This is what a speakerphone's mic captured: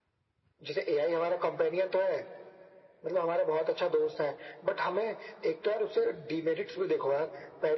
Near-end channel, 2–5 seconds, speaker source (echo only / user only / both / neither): echo only